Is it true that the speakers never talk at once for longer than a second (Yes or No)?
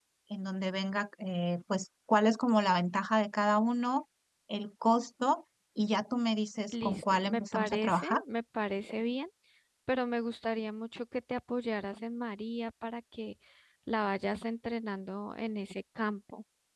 No